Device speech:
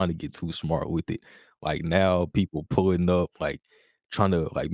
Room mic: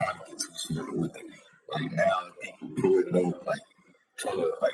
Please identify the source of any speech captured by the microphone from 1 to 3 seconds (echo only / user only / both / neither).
echo only